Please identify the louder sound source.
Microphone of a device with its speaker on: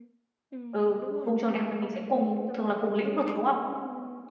user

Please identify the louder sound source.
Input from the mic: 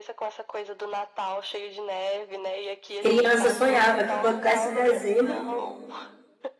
user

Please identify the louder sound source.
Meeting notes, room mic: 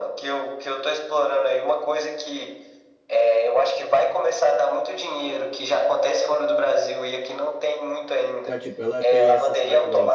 echo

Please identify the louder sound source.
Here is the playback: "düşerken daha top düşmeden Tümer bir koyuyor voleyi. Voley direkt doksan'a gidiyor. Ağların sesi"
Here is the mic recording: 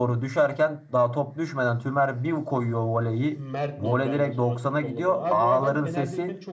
echo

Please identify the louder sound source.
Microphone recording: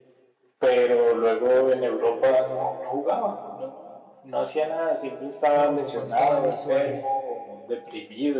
echo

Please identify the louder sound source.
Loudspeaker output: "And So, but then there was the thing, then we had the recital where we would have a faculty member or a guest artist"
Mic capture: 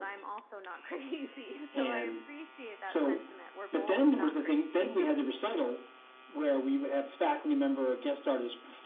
echo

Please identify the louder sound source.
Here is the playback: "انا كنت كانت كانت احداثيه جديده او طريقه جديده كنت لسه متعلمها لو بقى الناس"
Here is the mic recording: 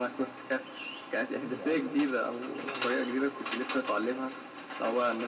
echo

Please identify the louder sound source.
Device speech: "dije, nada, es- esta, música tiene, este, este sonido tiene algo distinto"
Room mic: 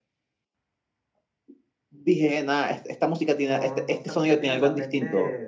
echo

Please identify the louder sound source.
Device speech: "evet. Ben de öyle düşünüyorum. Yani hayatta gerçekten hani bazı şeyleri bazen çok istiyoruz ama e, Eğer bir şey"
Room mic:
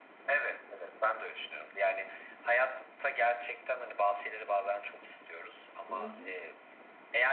echo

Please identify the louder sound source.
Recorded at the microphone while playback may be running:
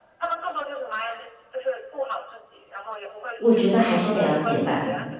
user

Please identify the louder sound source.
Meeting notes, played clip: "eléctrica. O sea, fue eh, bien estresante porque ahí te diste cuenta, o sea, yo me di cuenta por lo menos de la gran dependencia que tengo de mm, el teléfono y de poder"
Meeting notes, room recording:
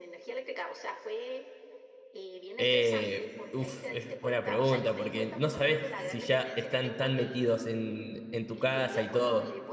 user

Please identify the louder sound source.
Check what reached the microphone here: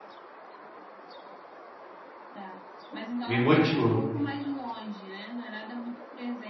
user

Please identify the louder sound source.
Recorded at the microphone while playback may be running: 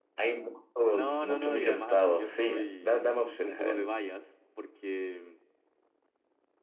echo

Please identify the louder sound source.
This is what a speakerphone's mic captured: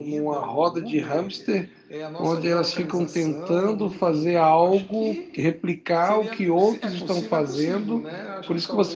user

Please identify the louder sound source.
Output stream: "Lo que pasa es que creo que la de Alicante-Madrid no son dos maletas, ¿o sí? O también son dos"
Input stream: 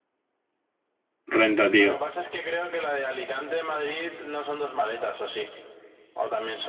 user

